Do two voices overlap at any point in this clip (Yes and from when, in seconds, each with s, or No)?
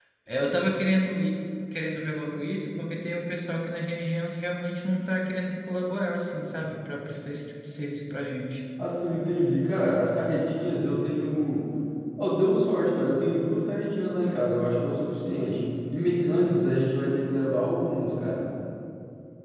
No